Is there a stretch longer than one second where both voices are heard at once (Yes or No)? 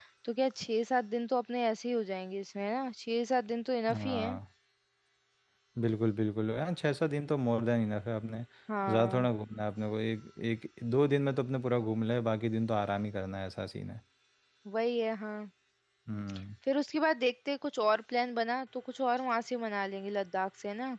No